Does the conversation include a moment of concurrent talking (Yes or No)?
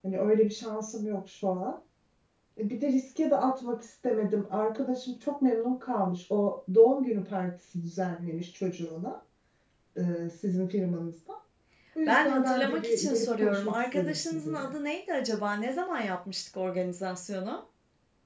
Yes